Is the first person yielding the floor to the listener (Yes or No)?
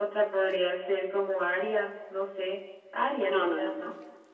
Yes